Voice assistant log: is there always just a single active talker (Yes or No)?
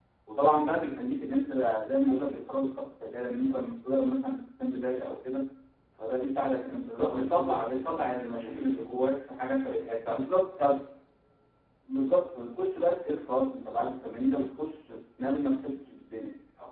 No